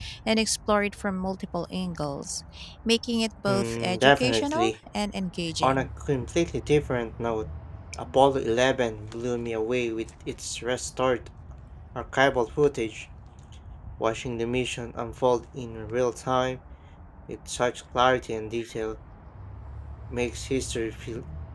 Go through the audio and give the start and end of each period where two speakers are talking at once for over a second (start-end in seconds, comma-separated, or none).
3.5-4.7